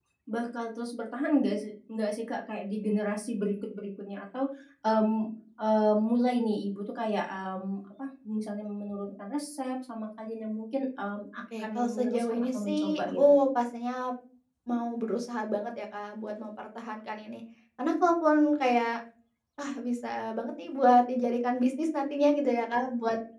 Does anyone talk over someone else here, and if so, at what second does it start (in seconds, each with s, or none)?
11.5 s